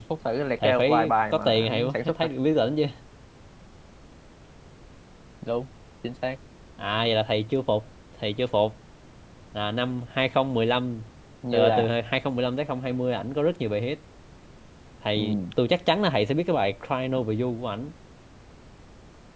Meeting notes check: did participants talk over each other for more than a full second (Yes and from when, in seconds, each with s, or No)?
Yes, from 0.6 s